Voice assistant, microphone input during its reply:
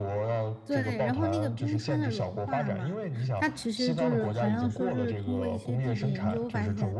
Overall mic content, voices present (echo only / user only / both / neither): both